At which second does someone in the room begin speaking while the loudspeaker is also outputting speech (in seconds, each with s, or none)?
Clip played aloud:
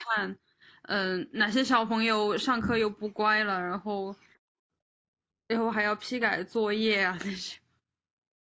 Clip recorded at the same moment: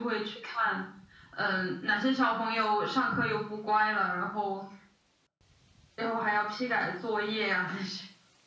none